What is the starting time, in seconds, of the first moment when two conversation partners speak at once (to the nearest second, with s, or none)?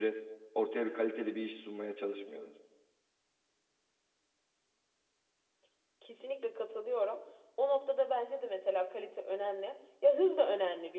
none